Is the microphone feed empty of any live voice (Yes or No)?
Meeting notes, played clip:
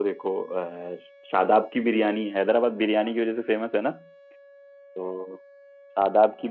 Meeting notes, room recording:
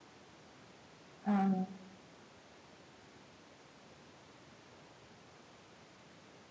No